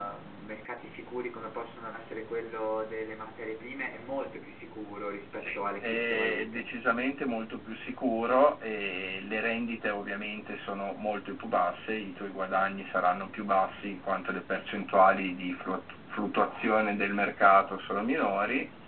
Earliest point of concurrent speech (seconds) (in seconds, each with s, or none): 5.4 s